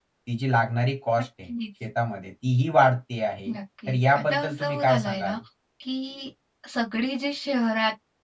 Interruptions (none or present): present